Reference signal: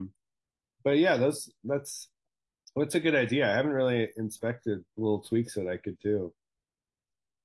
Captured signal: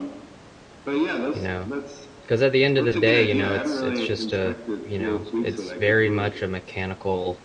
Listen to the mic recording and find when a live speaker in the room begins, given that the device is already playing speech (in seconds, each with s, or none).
1.3 s